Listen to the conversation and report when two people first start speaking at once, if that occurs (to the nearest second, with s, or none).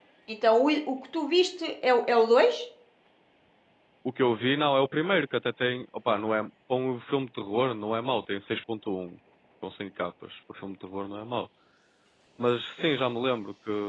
none